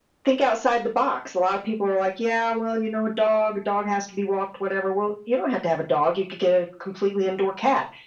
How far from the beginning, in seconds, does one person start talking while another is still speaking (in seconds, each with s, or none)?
none